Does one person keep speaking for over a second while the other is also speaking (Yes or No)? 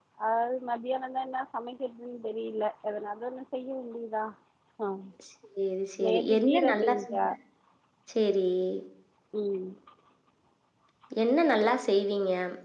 Yes